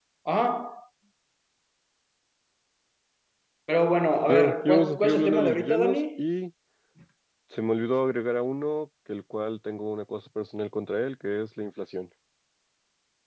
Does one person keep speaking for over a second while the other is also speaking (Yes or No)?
Yes